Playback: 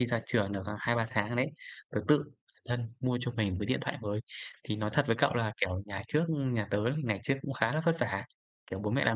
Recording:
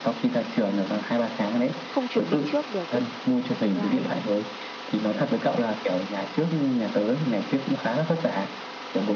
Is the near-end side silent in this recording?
No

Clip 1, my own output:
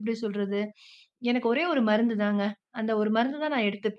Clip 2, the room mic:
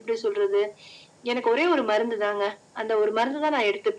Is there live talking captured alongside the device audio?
No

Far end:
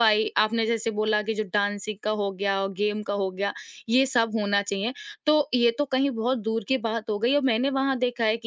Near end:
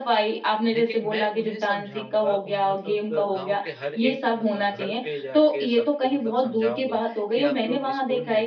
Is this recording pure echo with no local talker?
No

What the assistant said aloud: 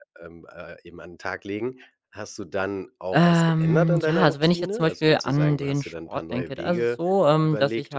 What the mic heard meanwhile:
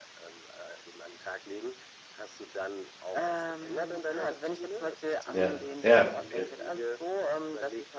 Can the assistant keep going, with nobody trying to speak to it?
No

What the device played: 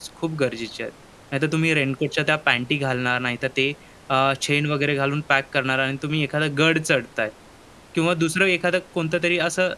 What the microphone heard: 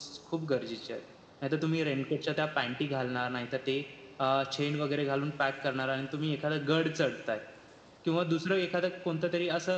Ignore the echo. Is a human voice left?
No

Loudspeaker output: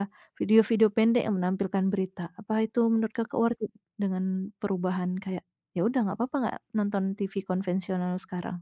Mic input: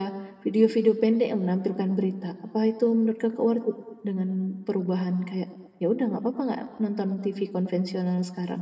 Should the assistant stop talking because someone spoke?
No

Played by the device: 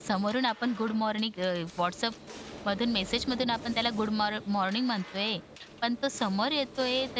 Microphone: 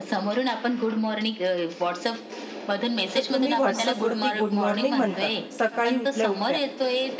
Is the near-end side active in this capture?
Yes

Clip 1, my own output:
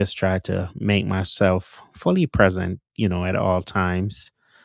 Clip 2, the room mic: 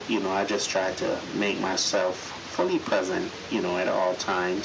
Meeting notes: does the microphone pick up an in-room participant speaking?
No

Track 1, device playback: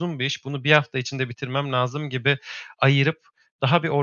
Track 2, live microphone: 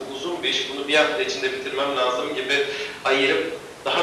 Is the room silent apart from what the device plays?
Yes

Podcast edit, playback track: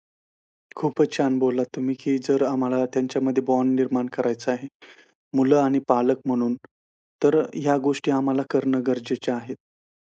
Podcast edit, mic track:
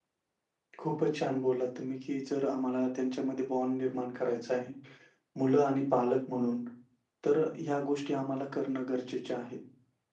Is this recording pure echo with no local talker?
Yes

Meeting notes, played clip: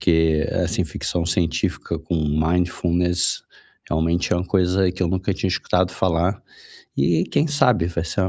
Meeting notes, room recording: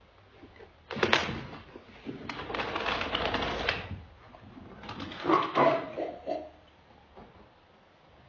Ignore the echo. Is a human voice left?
No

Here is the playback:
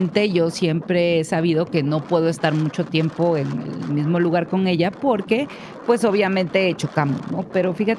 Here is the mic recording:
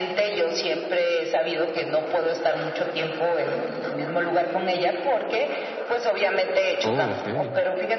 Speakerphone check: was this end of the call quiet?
No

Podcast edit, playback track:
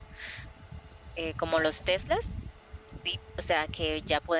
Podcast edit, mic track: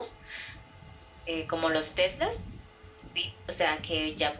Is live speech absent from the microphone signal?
Yes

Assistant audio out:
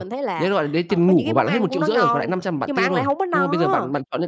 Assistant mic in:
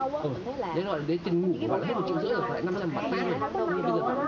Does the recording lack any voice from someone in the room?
No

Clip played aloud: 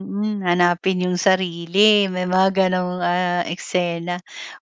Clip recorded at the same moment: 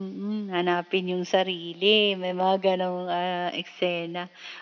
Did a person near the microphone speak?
No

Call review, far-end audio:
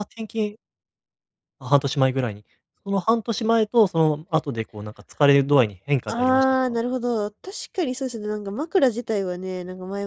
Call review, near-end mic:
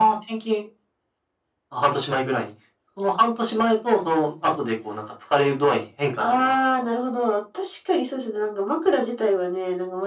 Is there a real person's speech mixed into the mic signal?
No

